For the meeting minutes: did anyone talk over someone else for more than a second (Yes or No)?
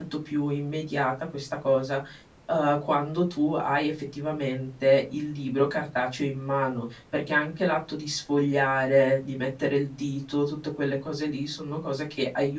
No